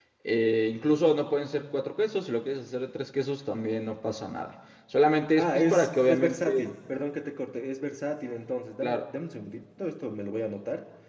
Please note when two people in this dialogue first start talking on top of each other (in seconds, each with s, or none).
5.4 s